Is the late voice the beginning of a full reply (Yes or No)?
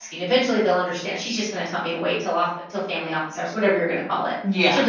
No